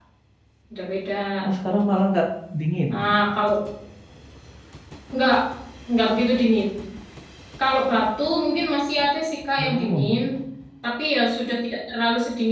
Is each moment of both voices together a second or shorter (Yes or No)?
Yes